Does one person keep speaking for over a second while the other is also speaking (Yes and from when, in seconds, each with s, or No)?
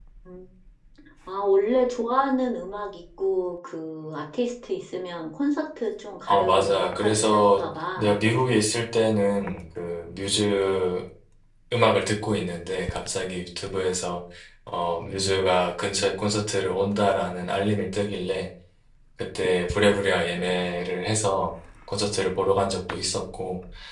Yes, from 6.3 s